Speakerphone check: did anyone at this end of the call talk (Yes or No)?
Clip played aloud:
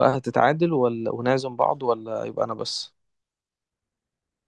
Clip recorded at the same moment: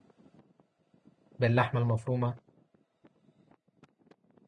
Yes